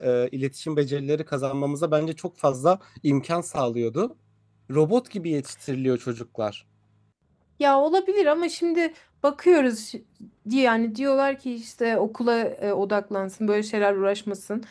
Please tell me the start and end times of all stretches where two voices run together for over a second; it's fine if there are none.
none

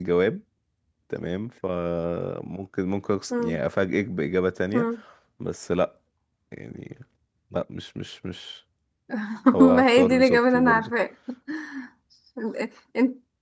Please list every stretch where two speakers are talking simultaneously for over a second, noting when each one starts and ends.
9.6-10.9

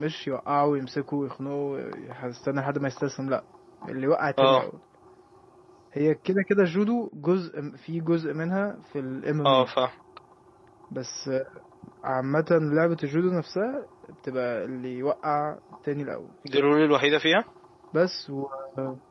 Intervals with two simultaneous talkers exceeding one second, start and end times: none

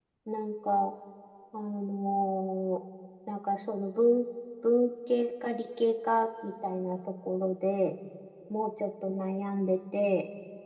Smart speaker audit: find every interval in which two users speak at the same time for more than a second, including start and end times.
none

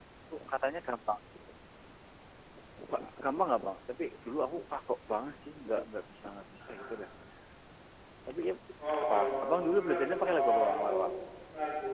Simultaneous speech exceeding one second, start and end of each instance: 9.0-10.9

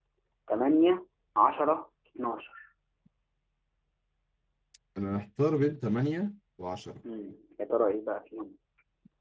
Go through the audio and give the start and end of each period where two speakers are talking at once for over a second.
none

